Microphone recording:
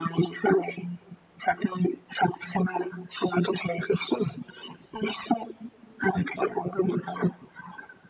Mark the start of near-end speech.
none

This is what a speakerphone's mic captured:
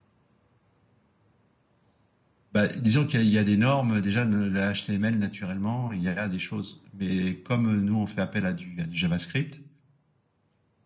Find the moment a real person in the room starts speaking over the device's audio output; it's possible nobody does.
3 s

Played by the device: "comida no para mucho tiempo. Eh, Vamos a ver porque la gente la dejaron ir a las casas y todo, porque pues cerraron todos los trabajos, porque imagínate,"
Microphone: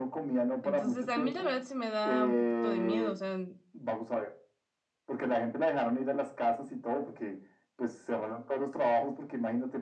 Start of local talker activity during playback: 1 s

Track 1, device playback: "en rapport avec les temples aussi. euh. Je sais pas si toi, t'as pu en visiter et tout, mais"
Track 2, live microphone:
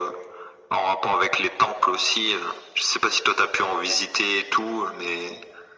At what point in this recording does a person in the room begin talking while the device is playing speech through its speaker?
none

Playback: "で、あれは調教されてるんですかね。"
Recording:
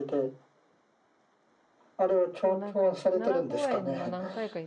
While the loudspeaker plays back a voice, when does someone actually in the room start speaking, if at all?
2 s

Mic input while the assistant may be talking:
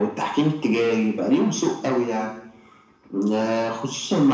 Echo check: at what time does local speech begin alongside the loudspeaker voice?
none

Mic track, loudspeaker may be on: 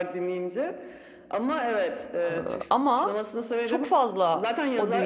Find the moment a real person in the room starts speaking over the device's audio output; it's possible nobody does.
2 s

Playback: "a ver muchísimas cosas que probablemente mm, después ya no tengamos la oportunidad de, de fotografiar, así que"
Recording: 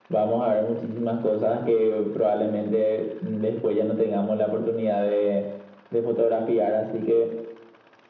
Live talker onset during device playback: none

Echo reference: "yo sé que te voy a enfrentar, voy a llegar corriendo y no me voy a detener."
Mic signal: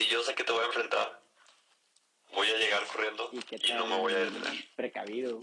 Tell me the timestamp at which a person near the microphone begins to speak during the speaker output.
3 s

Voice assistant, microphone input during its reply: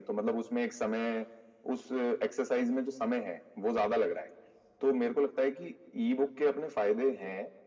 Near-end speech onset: none

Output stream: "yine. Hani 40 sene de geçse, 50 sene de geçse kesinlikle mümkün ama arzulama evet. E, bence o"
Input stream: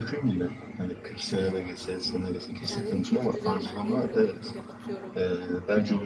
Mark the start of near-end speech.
3 s

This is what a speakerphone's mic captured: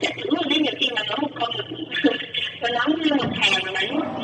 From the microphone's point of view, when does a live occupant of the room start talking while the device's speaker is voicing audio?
none

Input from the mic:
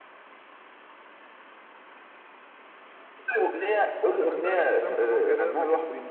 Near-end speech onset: 4 s

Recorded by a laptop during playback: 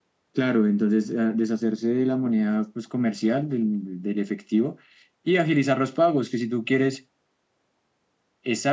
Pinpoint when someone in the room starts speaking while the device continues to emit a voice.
none

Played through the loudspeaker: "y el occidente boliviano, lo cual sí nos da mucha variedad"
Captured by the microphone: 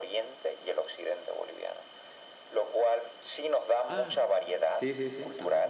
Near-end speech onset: 4 s

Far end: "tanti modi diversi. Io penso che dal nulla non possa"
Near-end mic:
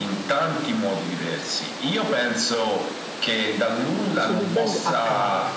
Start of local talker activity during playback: 4 s

